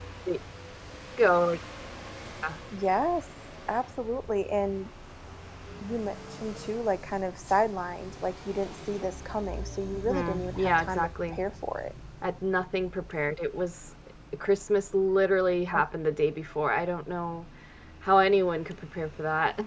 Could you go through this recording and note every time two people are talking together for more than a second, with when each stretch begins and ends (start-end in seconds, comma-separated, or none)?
10.1-11.4